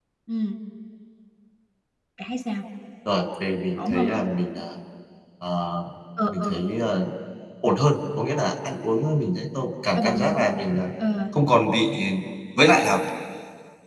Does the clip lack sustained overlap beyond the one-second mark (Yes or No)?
Yes